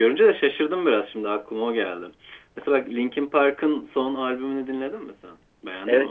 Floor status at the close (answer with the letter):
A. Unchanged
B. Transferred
B